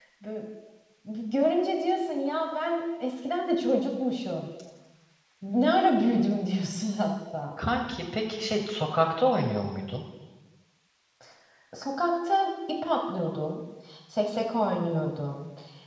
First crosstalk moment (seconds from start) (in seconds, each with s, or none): none